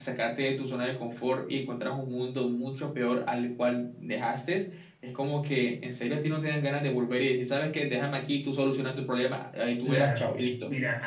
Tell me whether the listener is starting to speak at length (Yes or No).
Yes